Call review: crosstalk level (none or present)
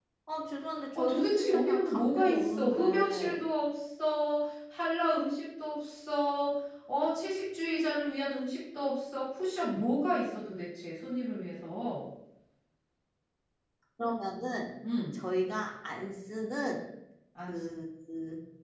present